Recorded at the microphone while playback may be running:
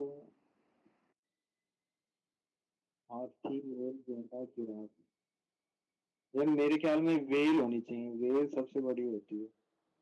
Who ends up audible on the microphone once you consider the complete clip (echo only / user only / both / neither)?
echo only